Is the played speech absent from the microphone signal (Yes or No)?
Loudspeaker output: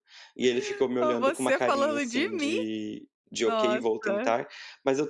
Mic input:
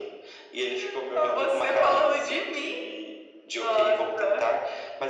No